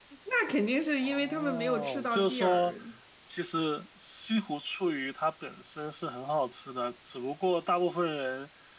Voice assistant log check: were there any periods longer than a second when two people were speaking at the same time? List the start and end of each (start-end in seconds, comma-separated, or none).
1.0-2.8